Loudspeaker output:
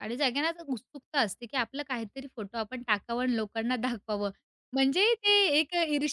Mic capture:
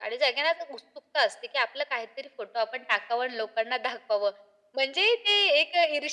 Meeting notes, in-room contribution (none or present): none